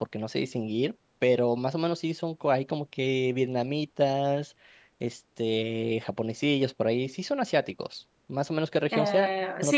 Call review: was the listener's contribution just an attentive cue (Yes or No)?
No